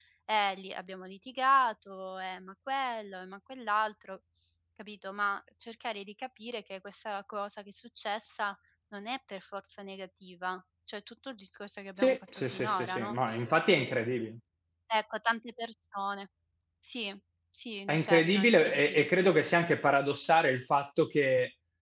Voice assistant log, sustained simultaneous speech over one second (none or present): present